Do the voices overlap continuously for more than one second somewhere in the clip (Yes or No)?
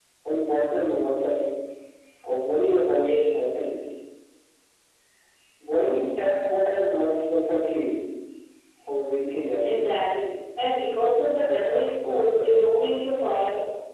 No